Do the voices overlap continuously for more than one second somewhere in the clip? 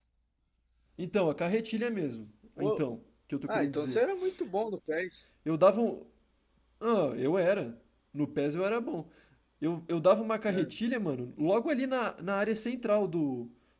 No

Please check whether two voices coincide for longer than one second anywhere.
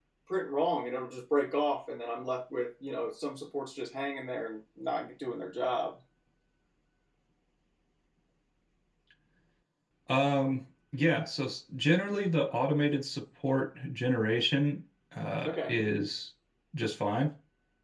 No

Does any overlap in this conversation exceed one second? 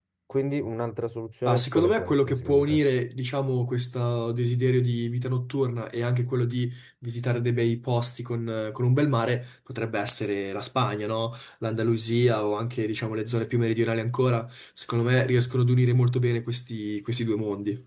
Yes, from 1.4 s

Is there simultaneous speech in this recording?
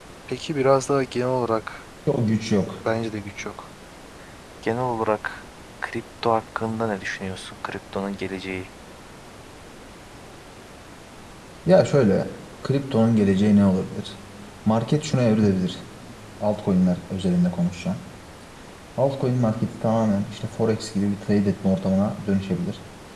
No

